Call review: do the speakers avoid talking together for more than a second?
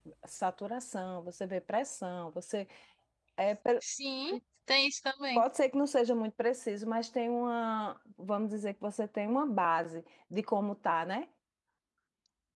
Yes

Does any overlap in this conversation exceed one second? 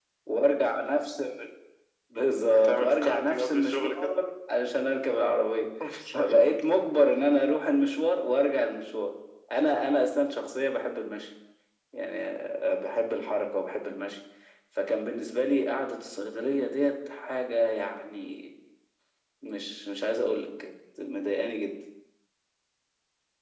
Yes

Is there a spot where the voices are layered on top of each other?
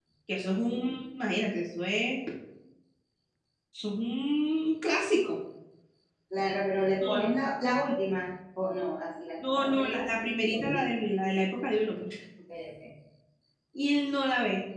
Yes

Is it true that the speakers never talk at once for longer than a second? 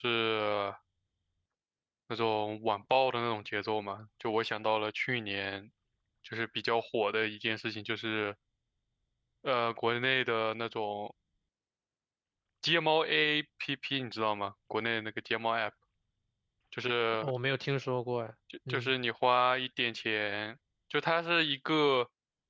Yes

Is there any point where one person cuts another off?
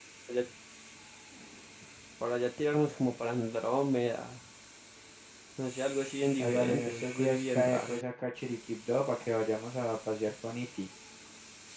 Yes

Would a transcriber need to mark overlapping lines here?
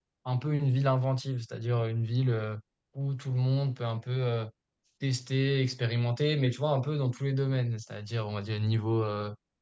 No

